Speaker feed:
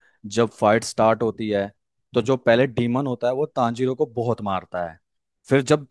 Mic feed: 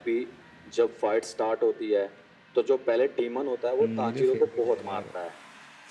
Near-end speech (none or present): present